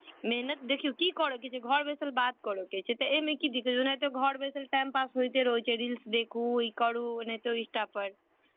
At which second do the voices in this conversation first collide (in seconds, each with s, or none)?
none